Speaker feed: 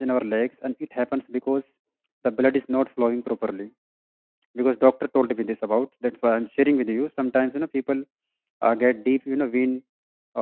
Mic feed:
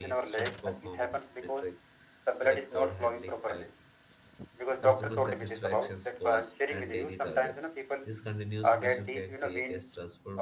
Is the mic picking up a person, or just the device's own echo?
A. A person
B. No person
A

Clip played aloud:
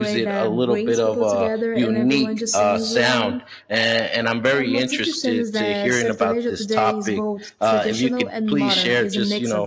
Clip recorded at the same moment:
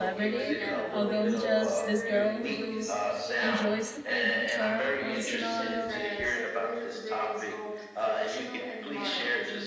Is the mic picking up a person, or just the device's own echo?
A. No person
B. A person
B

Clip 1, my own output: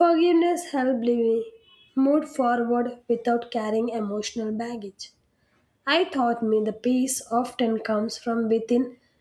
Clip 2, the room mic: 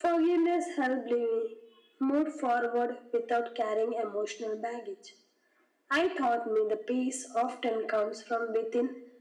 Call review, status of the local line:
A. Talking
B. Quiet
B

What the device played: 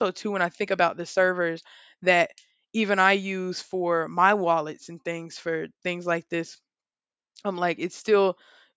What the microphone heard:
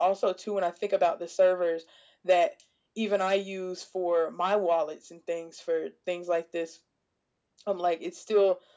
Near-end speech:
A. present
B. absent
B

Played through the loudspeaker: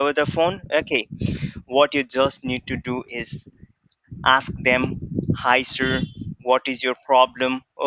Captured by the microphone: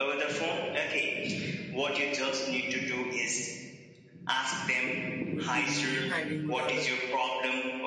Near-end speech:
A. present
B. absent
A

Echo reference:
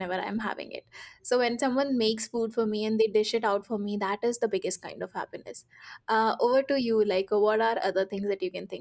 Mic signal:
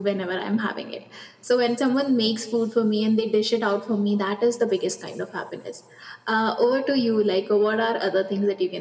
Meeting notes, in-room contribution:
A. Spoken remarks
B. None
B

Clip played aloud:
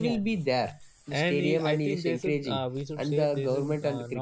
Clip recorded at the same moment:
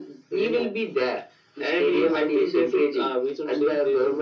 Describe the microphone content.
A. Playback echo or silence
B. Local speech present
A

